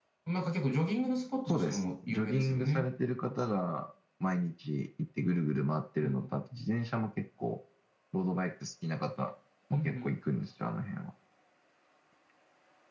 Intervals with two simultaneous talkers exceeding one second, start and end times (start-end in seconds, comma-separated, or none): 1.5-2.9